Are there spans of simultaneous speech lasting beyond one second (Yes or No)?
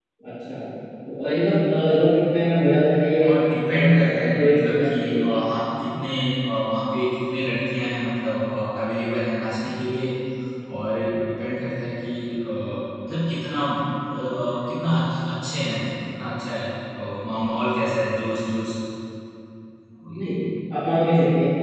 Yes